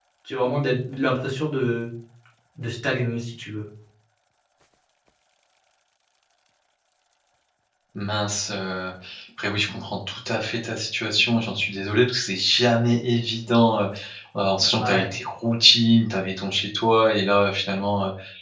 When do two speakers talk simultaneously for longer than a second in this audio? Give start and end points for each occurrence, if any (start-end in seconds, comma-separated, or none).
none